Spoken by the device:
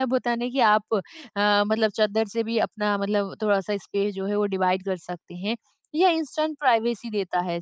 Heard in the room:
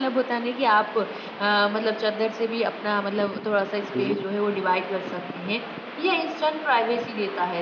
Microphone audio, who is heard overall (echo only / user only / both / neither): both